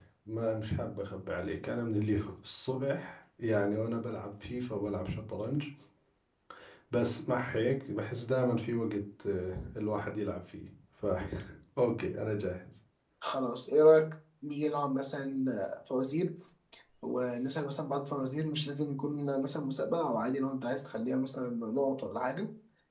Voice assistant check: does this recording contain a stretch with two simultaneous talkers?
No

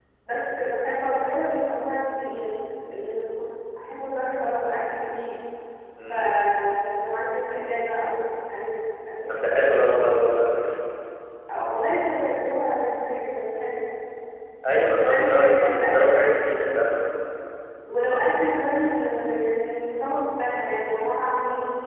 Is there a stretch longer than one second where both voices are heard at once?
Yes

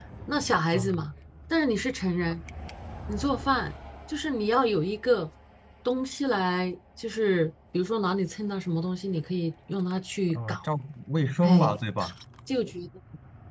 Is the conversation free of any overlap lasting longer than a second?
Yes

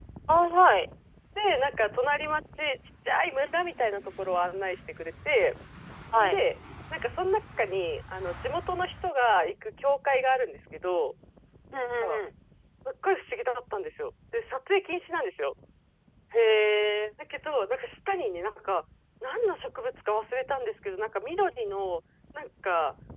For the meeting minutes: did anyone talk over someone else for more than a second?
No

